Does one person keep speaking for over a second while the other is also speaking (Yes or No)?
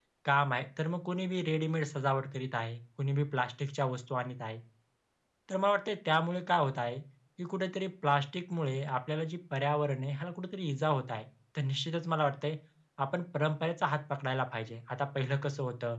No